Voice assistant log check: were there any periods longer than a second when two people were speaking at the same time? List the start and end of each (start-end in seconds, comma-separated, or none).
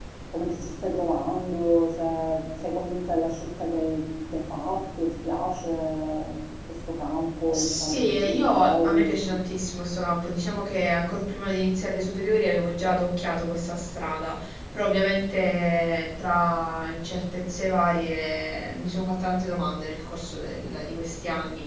7.5-9.2